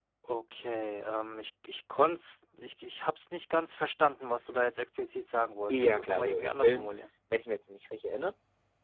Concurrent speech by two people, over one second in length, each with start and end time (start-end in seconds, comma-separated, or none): 5.7-6.9